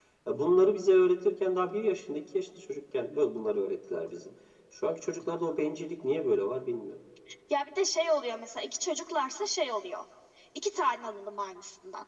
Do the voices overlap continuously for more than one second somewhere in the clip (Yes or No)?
No